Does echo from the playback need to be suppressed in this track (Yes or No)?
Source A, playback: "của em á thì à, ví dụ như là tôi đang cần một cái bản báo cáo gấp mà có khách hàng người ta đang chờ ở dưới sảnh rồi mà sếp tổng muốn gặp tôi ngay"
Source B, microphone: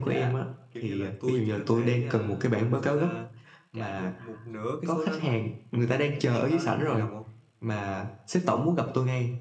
Yes